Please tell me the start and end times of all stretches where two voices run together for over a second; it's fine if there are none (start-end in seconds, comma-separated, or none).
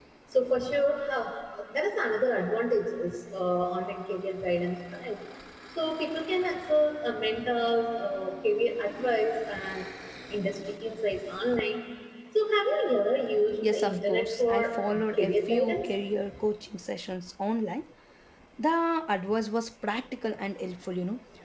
13.7-15.8